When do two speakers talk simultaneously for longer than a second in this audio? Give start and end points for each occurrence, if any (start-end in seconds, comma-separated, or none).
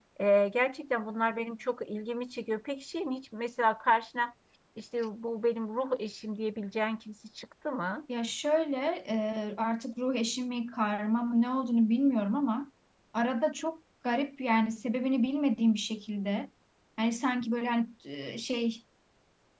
none